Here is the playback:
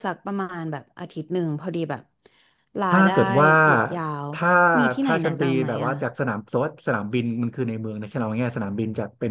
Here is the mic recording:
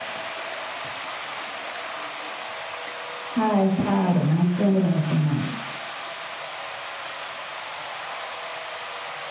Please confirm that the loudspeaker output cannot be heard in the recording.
Yes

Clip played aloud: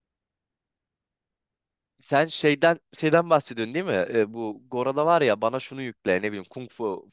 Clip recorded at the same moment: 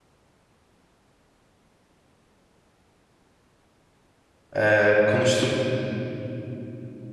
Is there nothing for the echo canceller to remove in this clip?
Yes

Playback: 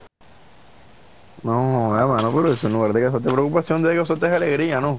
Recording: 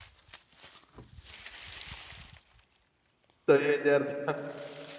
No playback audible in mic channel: Yes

